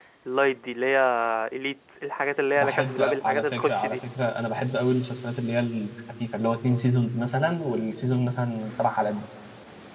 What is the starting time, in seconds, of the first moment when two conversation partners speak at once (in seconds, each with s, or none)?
2.6 s